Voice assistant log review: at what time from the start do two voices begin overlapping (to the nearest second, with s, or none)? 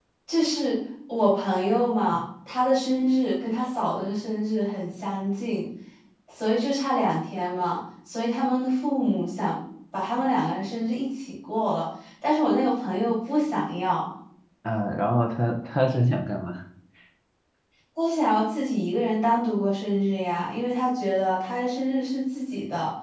none